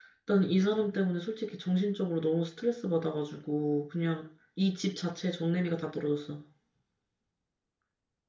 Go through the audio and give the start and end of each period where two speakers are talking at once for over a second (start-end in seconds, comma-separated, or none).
none